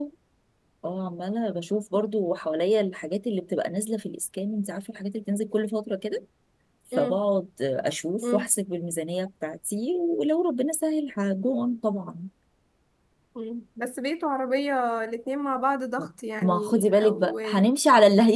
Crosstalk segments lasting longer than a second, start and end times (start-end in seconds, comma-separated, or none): 16.4-17.6